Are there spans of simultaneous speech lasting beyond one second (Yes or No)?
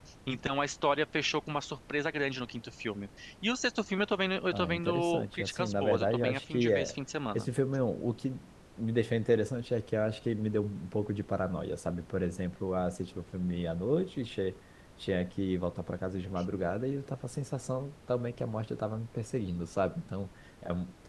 Yes